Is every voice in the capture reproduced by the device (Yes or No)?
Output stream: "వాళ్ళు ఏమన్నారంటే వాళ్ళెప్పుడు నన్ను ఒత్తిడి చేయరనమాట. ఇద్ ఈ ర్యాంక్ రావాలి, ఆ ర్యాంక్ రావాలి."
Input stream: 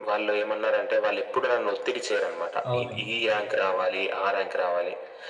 No